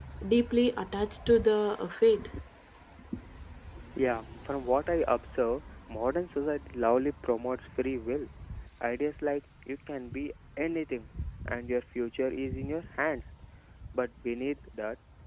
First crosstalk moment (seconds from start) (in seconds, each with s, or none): none